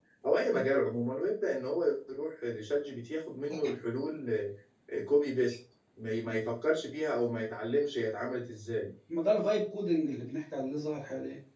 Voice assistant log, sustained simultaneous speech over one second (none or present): none